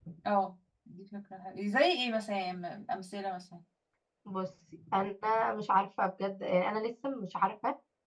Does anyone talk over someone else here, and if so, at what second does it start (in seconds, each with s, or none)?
none